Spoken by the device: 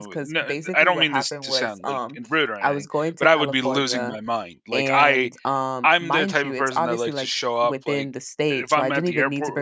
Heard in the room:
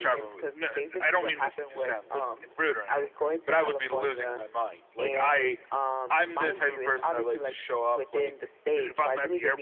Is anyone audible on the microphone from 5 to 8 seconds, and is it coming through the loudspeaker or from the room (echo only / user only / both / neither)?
echo only